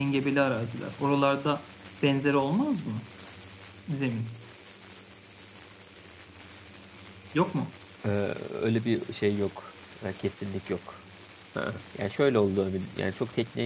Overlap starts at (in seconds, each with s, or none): none